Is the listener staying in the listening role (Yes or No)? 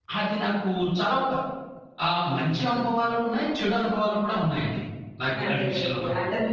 No